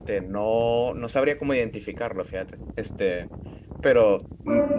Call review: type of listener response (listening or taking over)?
listening